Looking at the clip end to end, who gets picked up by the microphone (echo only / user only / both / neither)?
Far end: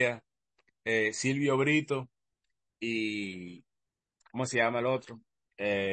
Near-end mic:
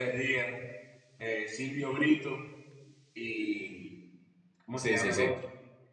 both